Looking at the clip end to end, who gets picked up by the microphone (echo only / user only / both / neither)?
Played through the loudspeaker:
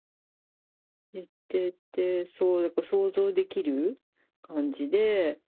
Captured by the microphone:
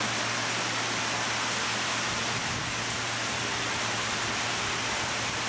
neither